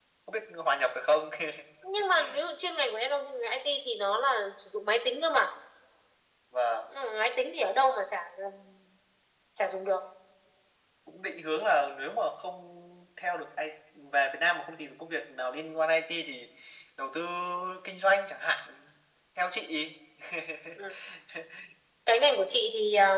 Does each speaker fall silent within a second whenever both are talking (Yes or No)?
Yes